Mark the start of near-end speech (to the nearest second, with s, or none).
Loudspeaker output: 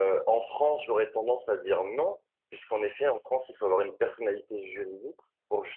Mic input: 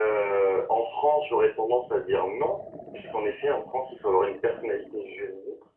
none